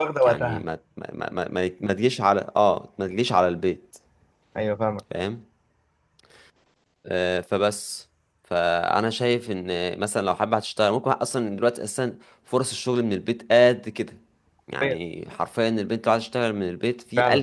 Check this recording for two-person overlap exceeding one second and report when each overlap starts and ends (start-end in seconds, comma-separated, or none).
none